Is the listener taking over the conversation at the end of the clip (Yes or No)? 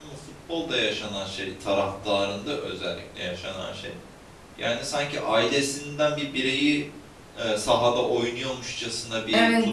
No